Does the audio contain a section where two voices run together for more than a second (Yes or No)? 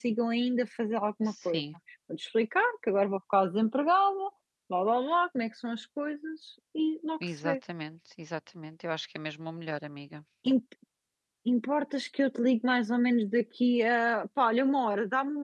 No